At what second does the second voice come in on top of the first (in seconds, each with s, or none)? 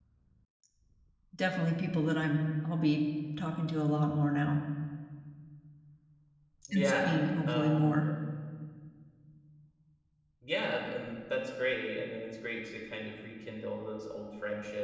6.7 s